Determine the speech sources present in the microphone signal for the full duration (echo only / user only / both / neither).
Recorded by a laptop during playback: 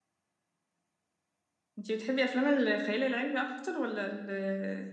user only